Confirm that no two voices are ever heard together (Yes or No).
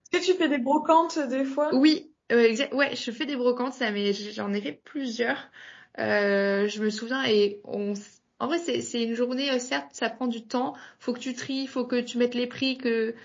Yes